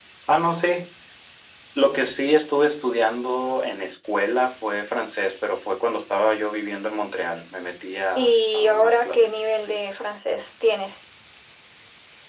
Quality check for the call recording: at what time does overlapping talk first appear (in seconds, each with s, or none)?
8.2 s